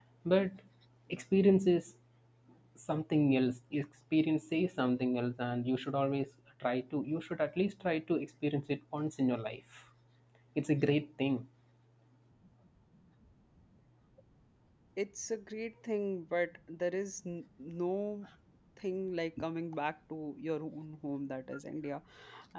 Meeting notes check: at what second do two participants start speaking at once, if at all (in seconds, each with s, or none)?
none